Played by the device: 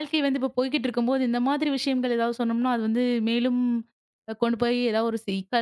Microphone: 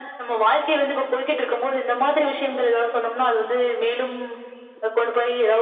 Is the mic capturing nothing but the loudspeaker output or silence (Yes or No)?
Yes